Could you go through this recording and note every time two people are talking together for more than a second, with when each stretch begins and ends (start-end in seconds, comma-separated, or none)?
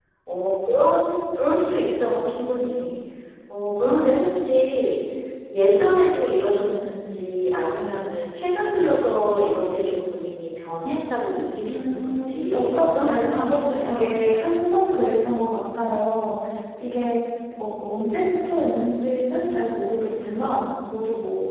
11.7-14.2